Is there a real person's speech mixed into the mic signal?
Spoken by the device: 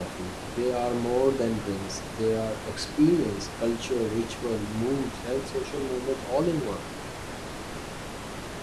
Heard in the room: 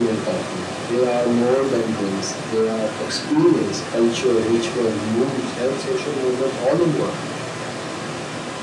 No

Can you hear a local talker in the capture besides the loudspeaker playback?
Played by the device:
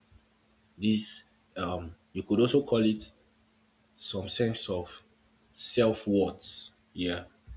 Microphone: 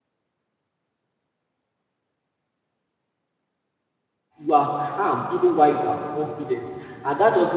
Yes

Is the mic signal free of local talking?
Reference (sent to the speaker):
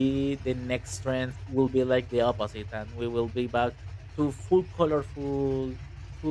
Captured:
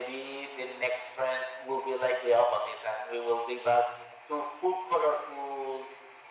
Yes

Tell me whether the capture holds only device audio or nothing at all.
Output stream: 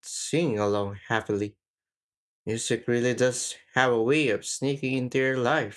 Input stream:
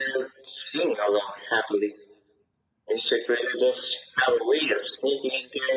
Yes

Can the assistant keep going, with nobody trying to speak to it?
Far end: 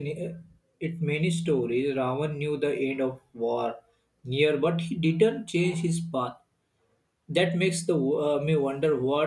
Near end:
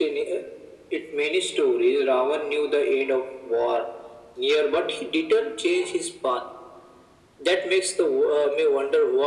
Yes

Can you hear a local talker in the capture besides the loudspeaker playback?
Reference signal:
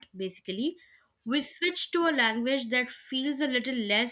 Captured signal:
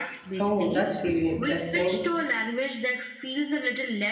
Yes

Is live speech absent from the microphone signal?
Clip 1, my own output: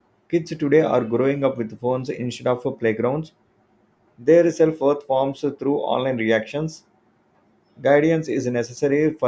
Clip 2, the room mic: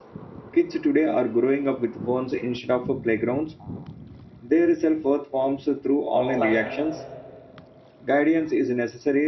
No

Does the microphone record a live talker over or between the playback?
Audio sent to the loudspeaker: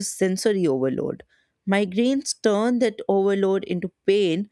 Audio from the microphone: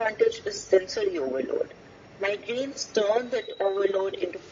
No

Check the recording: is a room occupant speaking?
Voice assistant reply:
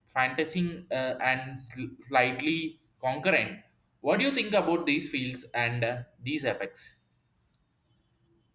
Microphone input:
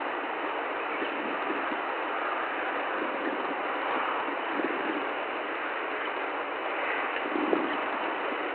No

